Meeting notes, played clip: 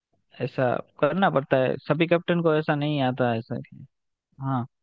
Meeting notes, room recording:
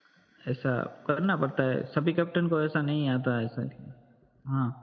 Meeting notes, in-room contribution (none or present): none